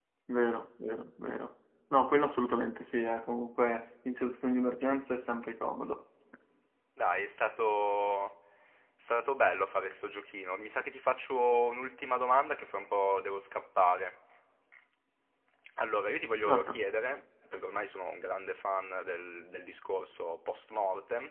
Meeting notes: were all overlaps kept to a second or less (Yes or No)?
Yes